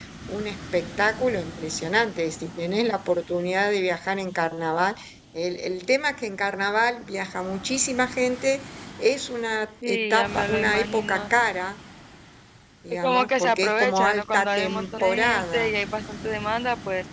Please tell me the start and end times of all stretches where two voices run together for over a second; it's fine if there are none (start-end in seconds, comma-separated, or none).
9.9-11.3, 12.9-15.7